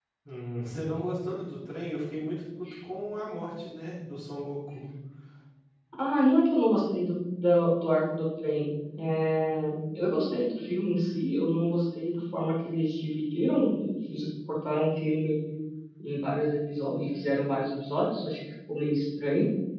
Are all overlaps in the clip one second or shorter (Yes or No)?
Yes